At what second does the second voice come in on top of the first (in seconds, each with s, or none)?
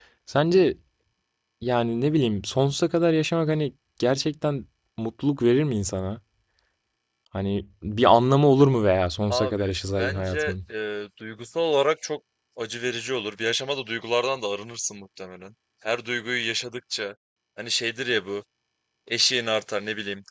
9.3 s